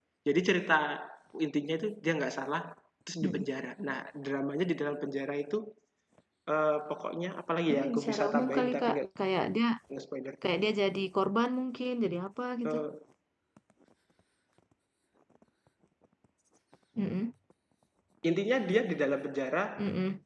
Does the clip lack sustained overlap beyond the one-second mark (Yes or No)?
No